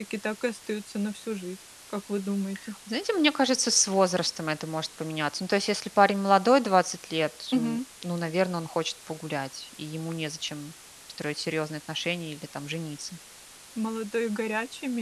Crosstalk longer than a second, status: none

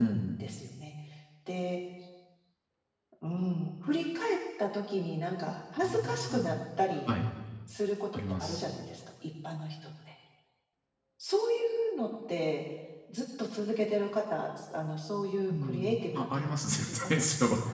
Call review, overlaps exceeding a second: present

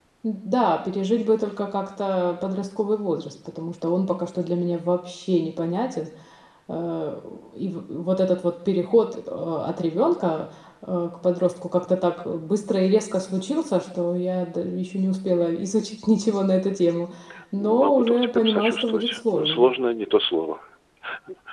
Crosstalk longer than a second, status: present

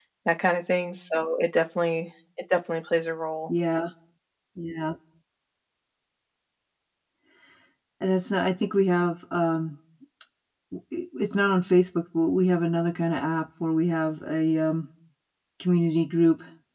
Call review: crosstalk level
none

